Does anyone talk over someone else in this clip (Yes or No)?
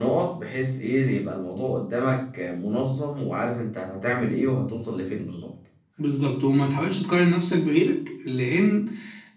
No